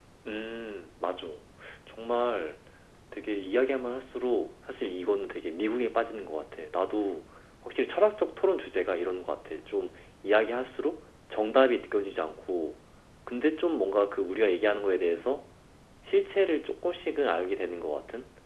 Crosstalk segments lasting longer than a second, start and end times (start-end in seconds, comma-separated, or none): none